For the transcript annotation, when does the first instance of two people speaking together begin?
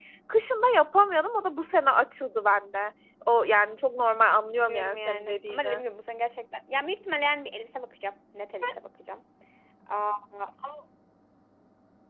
4.5 s

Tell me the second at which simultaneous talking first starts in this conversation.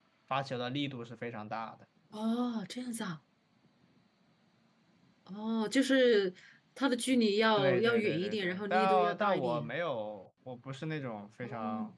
7.6 s

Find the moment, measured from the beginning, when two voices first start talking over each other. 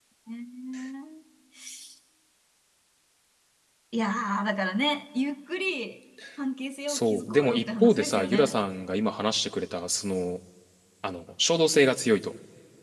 6.9 s

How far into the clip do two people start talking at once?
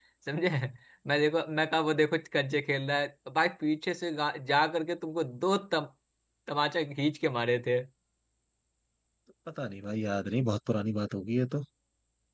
none

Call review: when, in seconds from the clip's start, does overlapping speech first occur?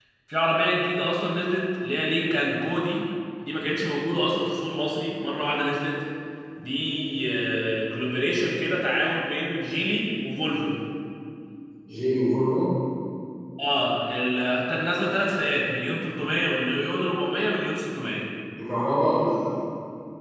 none

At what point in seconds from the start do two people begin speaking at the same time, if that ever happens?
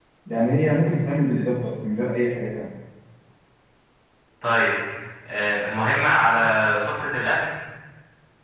none

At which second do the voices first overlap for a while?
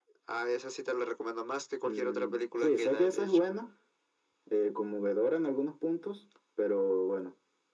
1.9 s

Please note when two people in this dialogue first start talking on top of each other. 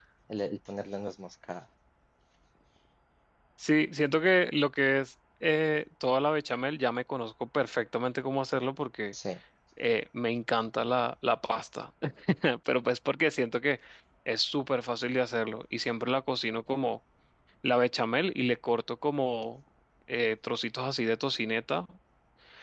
none

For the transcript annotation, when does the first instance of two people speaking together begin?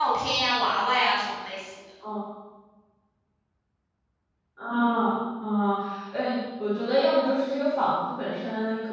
none

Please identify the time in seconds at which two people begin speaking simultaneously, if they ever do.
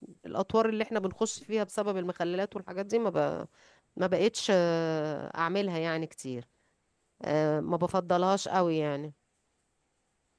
none

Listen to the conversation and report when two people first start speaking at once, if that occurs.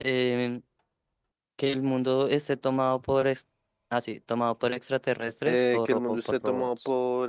5.5 s

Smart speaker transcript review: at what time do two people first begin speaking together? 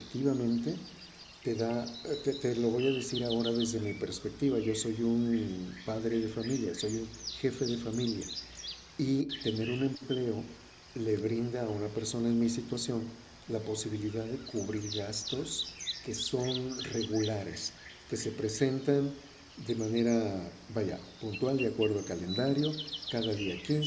none

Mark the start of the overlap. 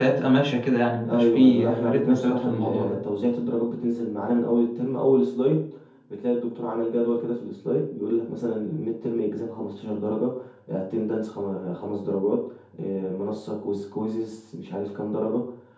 1.0 s

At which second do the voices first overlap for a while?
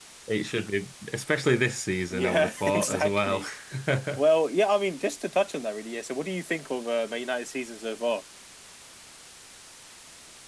2.1 s

